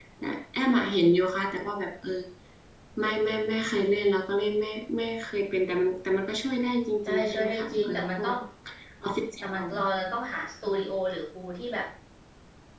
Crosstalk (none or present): present